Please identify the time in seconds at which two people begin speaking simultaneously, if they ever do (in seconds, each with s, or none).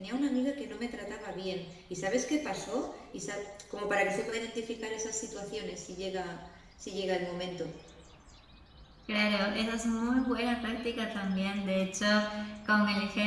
none